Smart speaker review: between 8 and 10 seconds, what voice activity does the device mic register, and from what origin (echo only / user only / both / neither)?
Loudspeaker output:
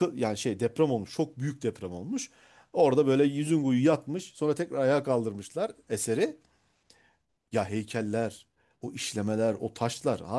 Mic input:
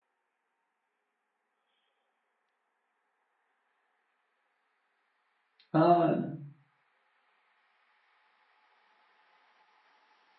neither